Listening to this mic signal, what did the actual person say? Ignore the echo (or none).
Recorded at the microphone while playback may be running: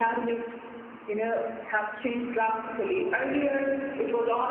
none